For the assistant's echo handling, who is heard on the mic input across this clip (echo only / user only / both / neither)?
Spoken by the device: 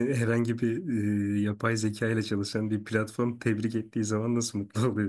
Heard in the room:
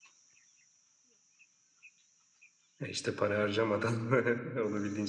user only